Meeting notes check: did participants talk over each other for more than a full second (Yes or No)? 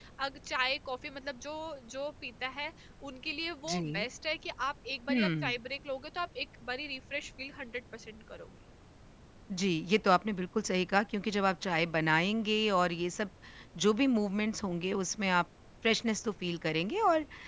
No